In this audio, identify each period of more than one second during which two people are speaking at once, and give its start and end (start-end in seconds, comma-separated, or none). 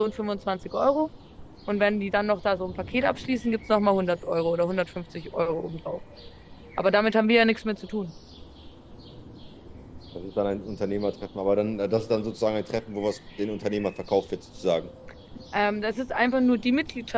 none